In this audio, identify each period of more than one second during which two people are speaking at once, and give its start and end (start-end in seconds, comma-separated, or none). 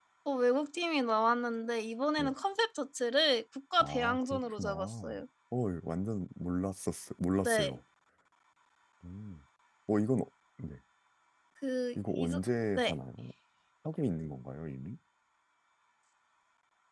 3.8-5.2